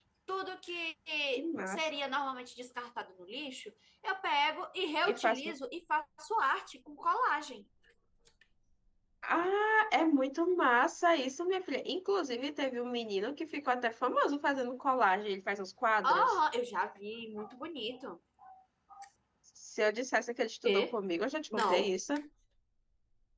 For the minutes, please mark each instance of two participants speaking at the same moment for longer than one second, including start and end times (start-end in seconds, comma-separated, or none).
none